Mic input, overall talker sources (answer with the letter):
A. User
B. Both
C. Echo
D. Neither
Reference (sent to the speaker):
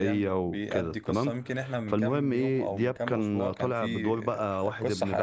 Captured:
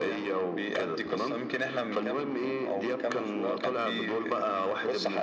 C